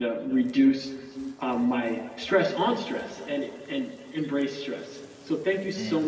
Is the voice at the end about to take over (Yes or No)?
No